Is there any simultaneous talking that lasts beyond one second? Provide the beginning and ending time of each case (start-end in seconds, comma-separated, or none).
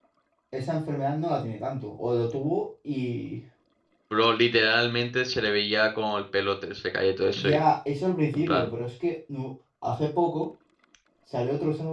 none